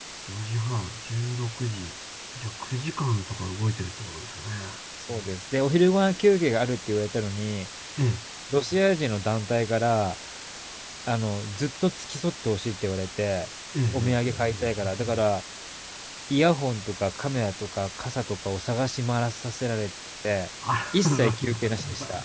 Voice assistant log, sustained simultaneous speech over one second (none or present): present